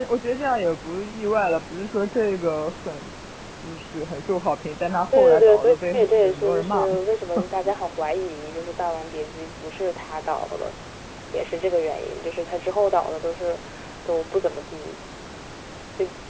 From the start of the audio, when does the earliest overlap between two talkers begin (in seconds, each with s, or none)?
5.1 s